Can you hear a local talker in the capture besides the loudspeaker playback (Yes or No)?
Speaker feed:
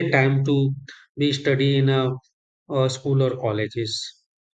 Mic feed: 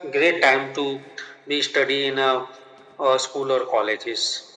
No